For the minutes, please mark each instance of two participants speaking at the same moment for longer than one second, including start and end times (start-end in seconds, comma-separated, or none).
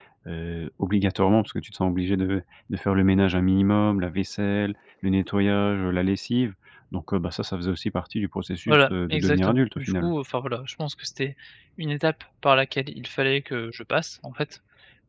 8.7-10.1